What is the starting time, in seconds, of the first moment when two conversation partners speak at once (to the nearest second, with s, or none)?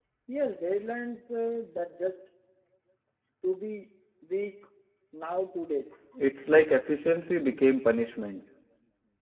none